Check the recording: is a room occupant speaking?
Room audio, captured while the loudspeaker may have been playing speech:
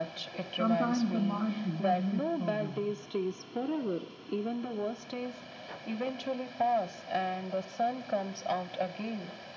Yes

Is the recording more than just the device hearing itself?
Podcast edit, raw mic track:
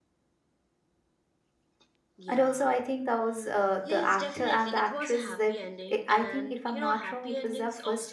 Yes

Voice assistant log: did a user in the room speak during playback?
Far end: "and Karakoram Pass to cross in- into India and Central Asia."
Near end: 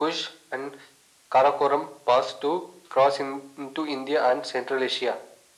No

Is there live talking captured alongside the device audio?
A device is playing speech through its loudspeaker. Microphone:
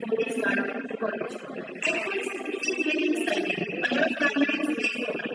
Yes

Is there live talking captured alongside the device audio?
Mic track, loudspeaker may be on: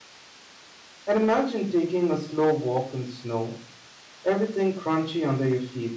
Yes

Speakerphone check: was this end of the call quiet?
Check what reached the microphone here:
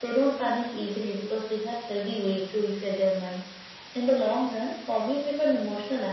Yes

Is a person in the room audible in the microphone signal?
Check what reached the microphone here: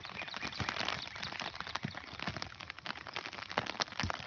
No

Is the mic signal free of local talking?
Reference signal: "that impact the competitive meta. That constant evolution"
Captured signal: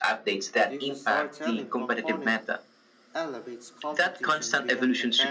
No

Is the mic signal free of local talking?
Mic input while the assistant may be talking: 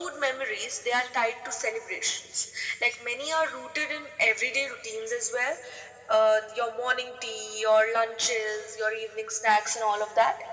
Yes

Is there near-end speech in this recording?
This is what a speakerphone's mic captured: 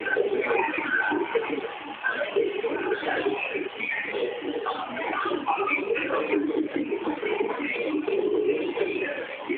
No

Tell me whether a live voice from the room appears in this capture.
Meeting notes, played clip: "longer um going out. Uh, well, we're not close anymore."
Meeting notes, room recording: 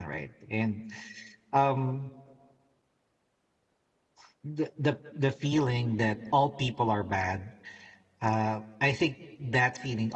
Yes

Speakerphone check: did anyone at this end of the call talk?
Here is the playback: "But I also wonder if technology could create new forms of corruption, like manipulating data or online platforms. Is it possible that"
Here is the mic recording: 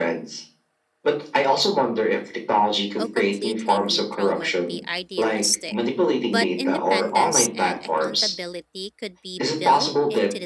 Yes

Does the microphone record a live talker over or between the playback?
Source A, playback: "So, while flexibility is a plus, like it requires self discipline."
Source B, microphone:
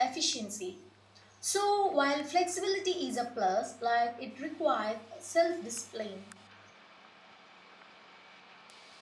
No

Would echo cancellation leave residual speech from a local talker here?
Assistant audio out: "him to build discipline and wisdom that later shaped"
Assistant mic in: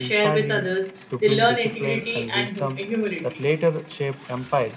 Yes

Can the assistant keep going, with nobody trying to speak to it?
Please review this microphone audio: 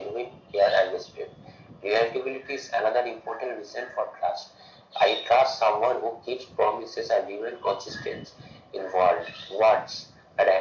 Yes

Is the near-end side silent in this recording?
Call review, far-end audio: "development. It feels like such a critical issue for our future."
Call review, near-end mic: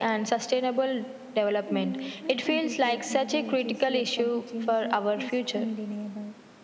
No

